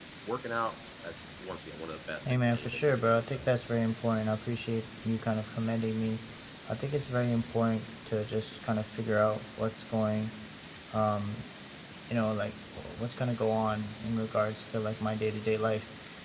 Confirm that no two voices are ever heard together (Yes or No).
No